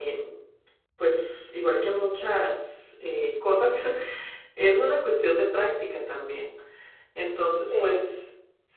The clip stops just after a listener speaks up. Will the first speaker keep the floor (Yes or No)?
Yes